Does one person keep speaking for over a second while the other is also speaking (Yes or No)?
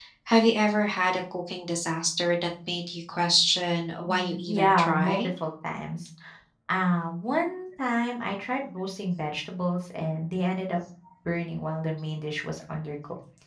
Yes